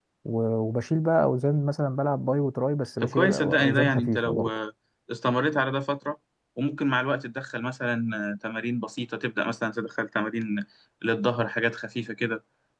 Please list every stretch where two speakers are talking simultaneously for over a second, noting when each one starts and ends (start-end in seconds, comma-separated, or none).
3.0-4.5